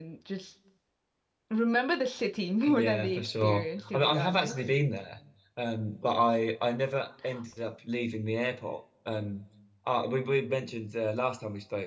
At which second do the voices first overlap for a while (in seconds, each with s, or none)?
2.7 s